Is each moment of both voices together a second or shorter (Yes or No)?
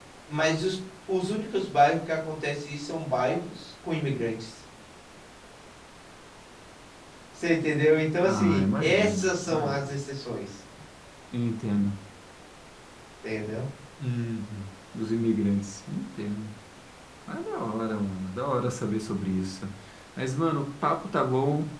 No